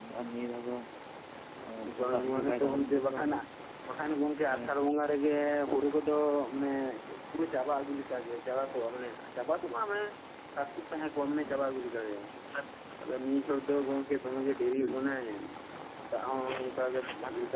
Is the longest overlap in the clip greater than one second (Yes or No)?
Yes